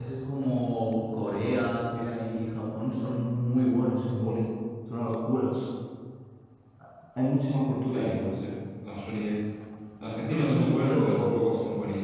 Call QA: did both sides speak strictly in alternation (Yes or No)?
No